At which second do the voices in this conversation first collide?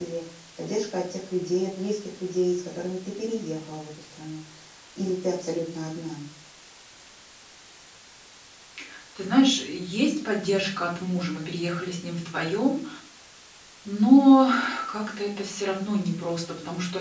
none

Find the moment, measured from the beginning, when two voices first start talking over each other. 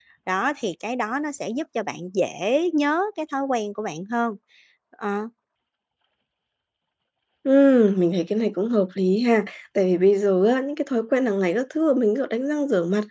none

